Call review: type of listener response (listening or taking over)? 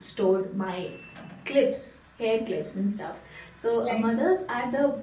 listening